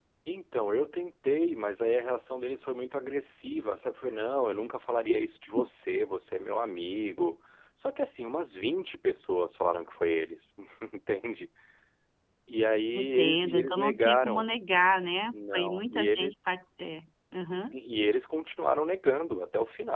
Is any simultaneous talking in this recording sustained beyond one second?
Yes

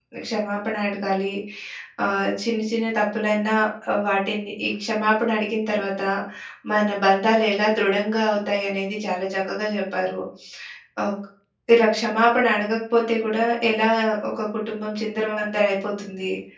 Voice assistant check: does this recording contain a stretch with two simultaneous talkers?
No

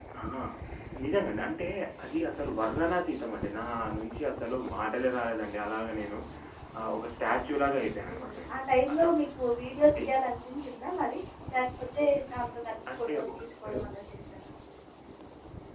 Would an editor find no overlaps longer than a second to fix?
Yes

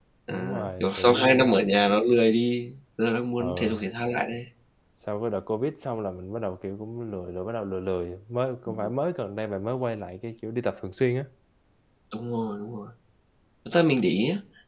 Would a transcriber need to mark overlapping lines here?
Yes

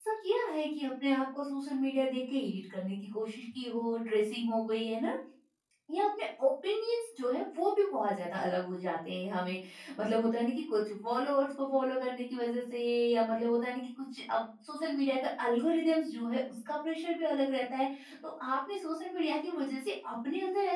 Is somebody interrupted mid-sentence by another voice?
No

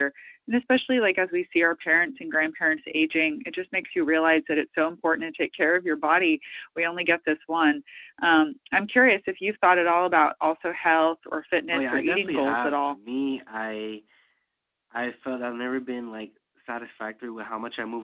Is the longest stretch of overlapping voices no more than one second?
No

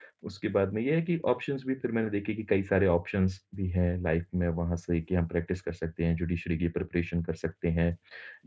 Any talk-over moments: No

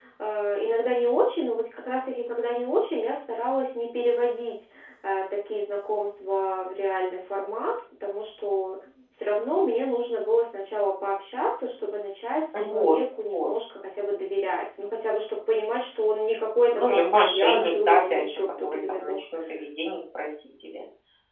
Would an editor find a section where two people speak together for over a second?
Yes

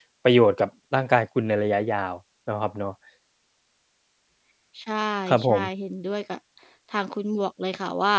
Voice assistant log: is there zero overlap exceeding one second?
Yes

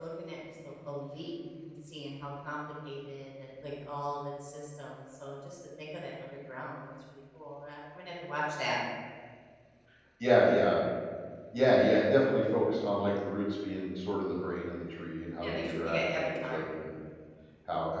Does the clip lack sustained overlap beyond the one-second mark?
No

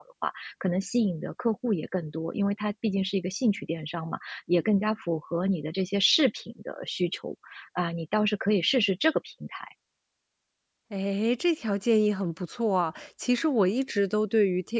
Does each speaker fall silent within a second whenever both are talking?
Yes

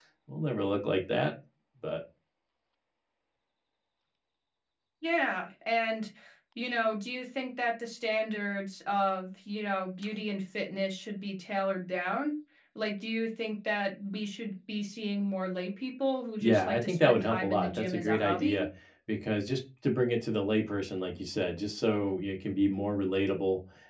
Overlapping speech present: Yes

